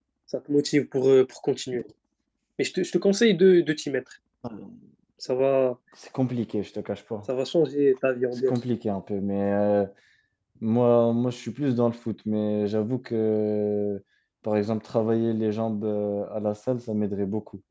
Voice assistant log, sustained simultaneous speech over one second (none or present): none